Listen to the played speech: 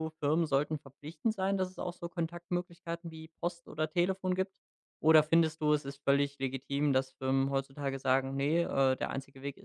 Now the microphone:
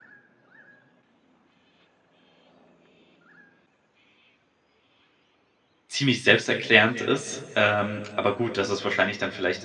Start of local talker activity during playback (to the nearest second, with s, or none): 6 s